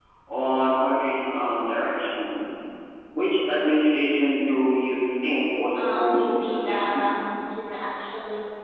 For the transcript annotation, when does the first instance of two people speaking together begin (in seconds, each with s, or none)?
5.7 s